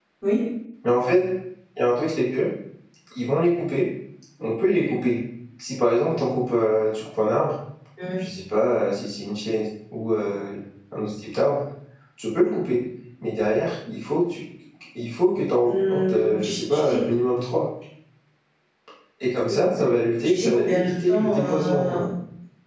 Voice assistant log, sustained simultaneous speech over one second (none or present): present